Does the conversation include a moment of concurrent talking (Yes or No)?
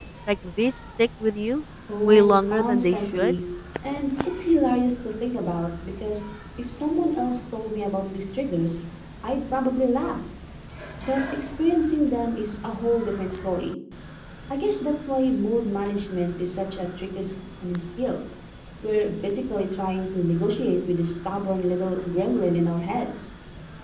Yes